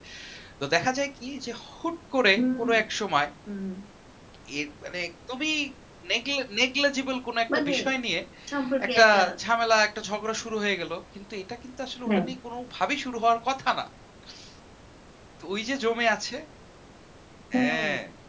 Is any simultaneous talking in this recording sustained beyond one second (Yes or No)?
No